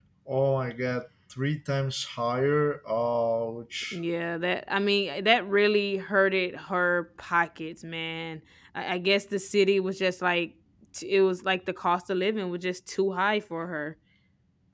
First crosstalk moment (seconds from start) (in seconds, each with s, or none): none